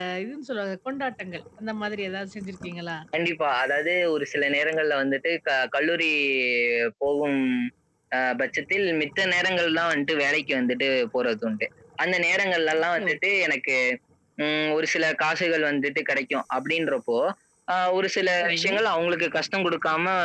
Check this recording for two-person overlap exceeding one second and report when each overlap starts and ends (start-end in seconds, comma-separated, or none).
none